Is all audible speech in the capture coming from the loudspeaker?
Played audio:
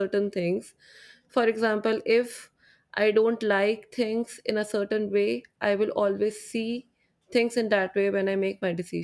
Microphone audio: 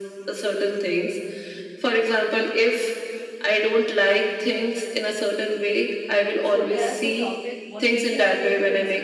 No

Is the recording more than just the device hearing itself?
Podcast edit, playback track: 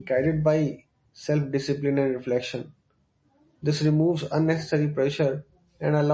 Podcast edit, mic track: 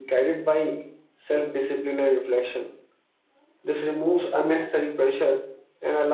No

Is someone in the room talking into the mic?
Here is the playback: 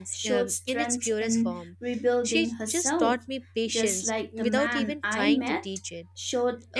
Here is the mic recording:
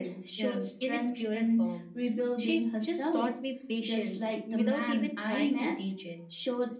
No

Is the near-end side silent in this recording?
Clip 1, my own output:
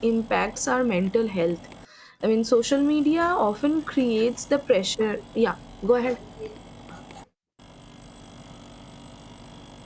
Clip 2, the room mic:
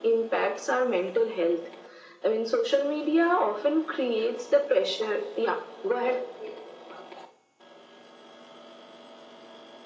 Yes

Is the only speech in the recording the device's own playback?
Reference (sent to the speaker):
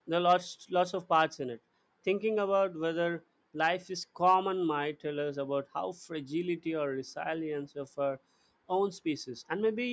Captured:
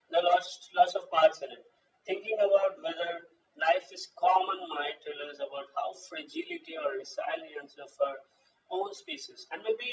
Yes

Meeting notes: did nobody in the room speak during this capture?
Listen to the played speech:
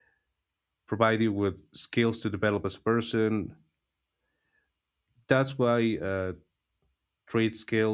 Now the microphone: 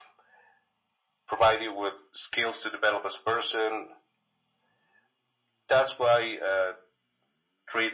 Yes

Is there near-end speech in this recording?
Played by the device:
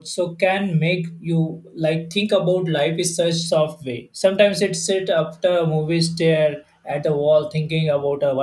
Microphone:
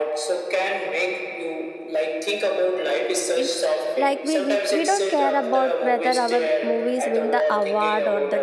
Yes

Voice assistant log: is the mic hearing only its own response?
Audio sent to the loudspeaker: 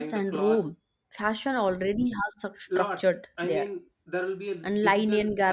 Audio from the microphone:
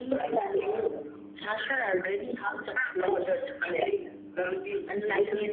Yes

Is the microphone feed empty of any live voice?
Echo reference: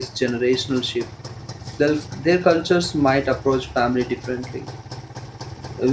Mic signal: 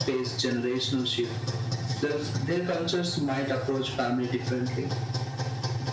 Yes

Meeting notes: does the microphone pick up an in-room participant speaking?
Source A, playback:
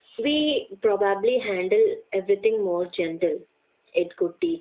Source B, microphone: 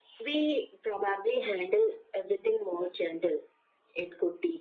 No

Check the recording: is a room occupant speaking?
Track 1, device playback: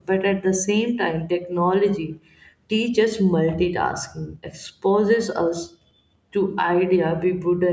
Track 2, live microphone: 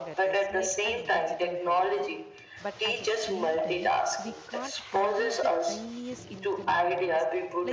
Yes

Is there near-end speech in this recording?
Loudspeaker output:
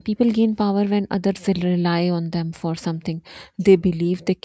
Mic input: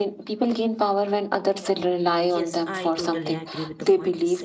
Yes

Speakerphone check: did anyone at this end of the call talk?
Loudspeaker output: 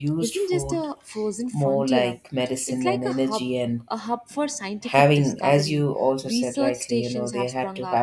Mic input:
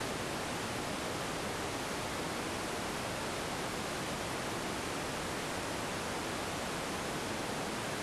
No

